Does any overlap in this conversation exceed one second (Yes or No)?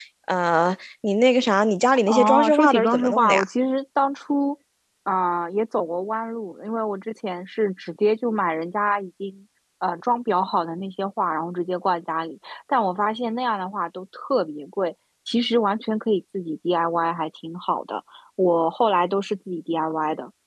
Yes